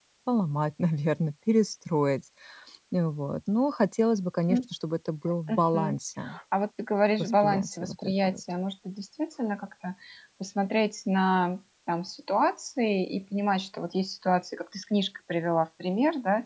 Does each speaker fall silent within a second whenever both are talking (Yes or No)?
No